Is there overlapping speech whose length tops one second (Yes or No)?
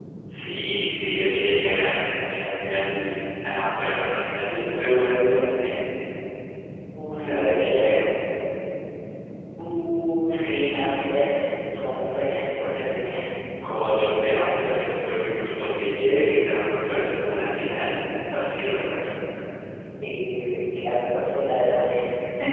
No